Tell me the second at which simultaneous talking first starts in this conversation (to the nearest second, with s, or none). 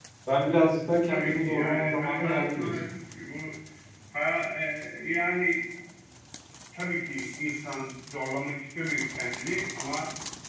1 s